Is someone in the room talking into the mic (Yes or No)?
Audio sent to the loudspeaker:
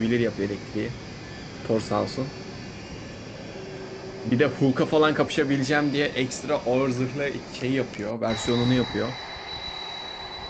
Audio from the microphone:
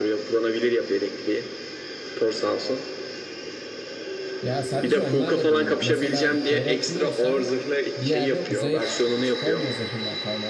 Yes